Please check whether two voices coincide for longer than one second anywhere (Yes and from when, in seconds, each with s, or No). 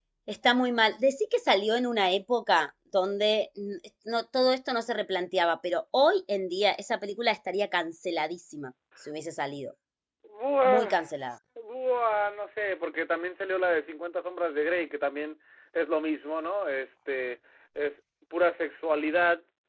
No